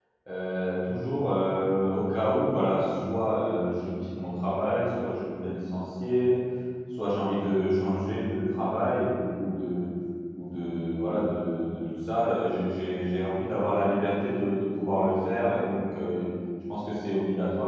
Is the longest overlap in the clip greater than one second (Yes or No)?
No